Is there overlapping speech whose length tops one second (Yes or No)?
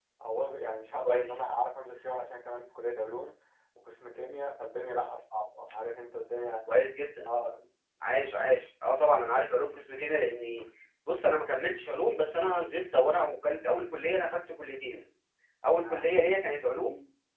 No